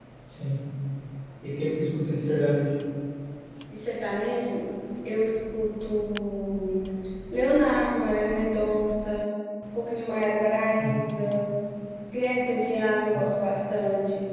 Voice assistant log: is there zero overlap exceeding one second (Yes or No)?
Yes